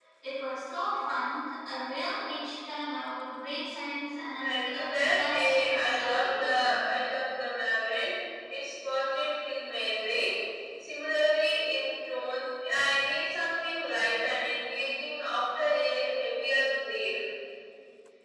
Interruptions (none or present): present